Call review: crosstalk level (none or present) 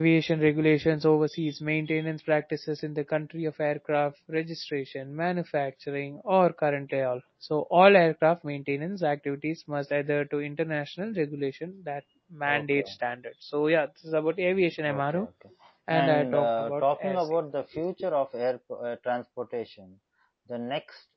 present